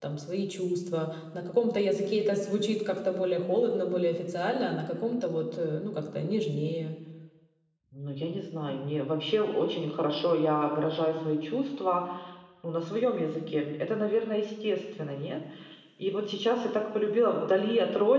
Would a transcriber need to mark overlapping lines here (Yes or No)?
No